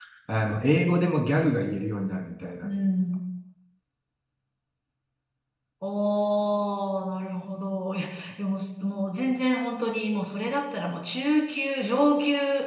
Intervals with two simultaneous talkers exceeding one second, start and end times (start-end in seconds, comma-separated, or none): none